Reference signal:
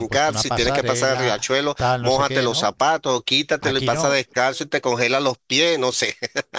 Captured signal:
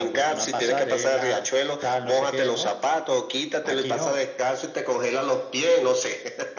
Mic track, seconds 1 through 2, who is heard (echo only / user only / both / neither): echo only